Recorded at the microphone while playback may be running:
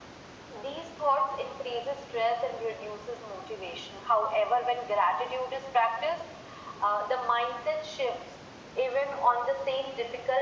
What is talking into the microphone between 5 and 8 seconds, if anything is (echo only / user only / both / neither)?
echo only